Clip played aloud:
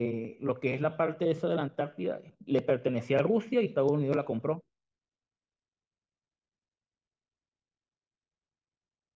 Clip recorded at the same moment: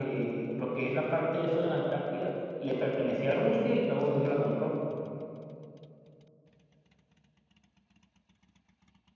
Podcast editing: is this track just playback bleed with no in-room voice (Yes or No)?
Yes